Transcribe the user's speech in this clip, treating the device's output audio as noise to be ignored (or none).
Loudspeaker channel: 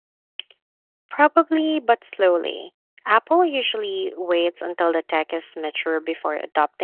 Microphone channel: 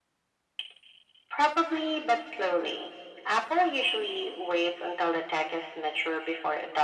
none